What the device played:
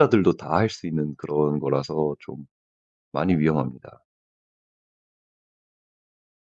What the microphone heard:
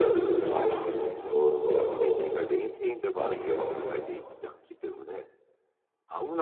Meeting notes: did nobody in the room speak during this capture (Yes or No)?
No